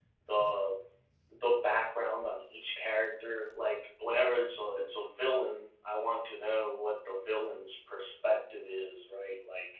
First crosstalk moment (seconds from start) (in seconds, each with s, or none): none